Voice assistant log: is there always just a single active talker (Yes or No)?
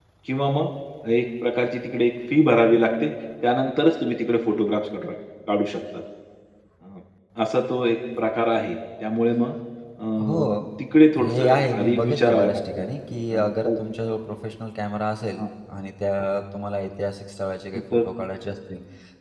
No